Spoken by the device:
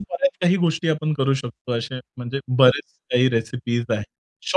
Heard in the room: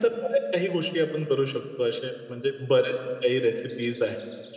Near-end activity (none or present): none